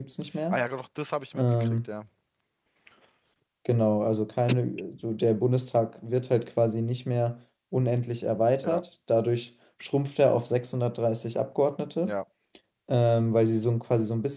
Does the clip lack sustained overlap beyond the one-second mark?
Yes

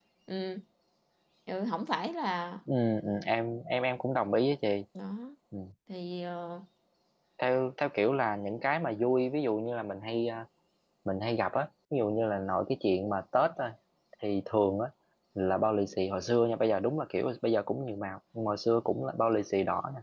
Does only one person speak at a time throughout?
Yes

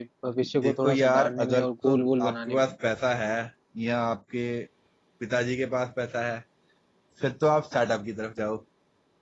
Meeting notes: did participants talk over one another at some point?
Yes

